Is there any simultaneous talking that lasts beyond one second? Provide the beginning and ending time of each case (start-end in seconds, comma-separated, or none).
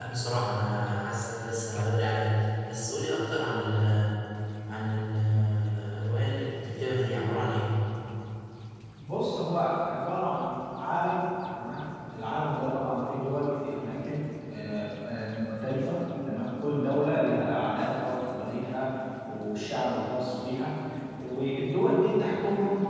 none